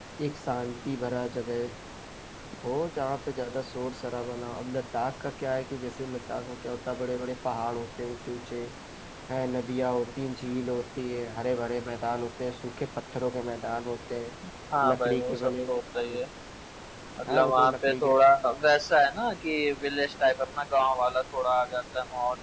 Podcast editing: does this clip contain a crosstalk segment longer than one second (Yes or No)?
Yes